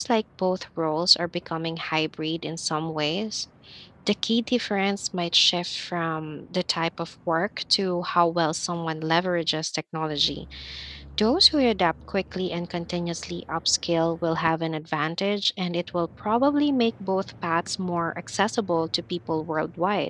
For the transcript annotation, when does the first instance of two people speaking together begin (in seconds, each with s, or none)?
none